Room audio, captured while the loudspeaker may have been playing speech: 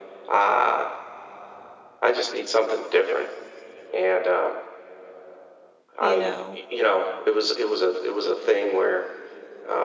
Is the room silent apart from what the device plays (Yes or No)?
No